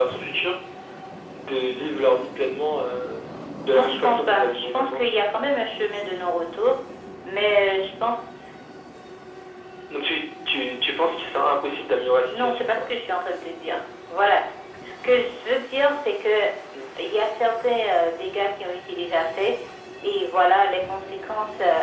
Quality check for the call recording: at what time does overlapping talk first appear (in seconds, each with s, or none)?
3.7 s